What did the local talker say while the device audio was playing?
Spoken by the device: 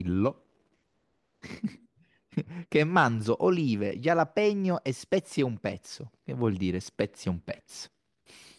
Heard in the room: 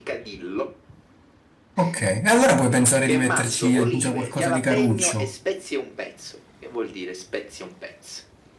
Ok, e allora puoi pensare di metterci già qualcosa di caruccio.

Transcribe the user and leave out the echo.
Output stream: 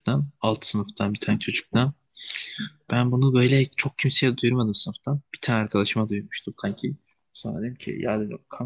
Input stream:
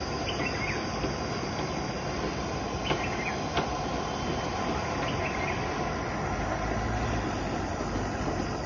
none

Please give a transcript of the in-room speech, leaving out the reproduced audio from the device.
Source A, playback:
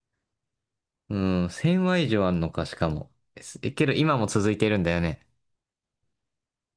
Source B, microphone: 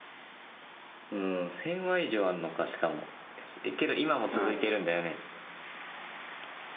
うん。

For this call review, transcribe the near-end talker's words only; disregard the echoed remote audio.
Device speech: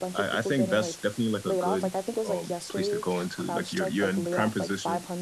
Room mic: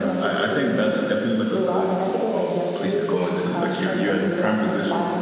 none

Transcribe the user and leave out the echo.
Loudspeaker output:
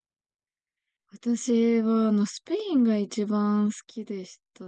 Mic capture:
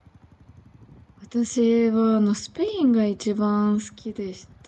none

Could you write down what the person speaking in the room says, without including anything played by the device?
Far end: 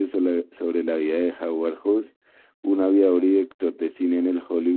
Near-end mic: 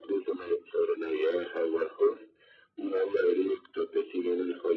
none

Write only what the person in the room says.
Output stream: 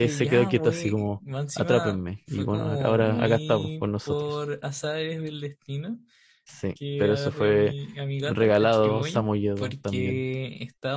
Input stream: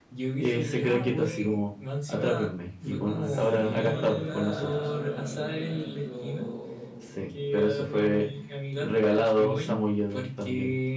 sí, ahora está, bueno, igual yo

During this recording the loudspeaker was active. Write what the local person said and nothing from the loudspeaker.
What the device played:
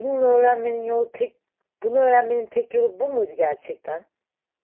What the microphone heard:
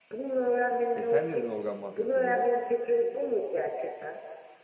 E sen dedin organ mafyası diye.

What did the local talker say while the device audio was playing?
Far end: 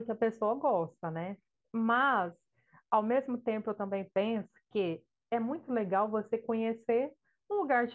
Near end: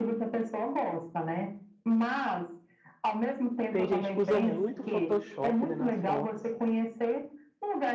tem gente que usa muito Photoshop, né, nas fotos.

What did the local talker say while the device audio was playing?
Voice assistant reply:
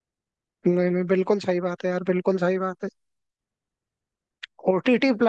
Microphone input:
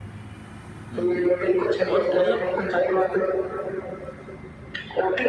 हम्म और मतलब

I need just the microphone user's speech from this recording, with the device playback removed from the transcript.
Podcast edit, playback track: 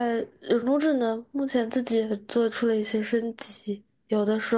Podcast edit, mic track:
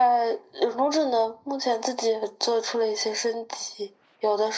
none

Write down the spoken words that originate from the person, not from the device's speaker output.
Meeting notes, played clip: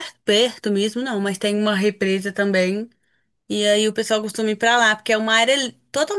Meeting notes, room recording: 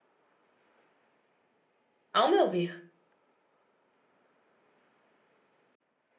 ao meu ver.

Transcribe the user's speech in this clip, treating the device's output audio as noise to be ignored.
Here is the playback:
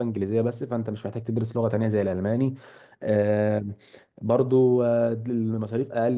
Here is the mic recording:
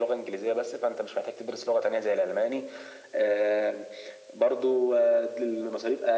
none

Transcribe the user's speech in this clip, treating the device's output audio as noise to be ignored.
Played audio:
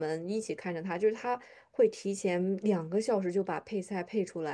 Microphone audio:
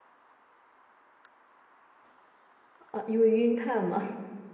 啊，因为晕碳嘛。

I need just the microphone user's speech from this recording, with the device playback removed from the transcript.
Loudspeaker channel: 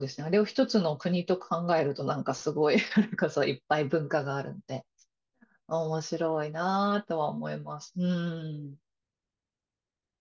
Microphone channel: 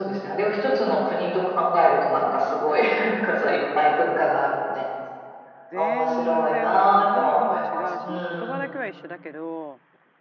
全然もう文化も違うし、まあ、言葉だけは一緒だけど、

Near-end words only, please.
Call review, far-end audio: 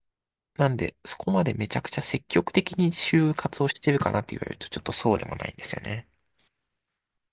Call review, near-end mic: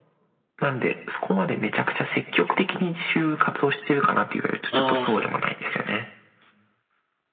ああ、そう。

